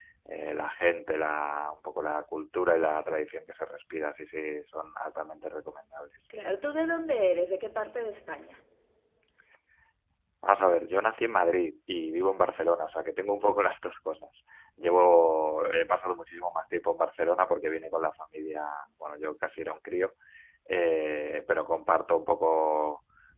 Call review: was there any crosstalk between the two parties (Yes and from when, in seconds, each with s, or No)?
No